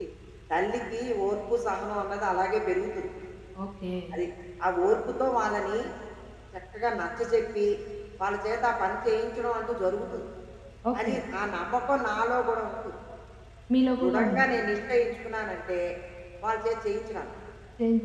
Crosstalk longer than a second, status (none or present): none